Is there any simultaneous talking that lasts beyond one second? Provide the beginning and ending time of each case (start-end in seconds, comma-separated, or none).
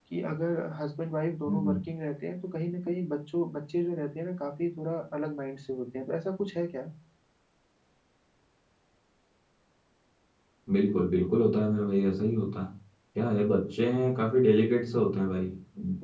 none